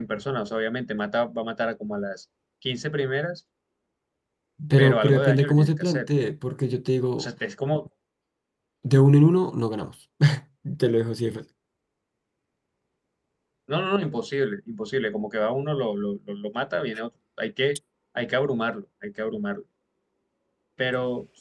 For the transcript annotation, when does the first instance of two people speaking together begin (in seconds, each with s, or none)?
4.8 s